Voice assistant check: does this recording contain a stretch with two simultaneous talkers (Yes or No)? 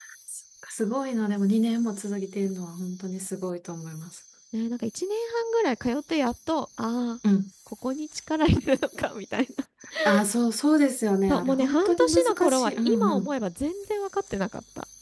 Yes